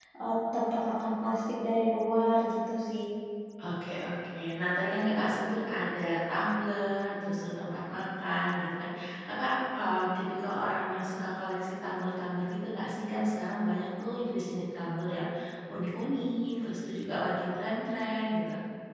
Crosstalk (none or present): none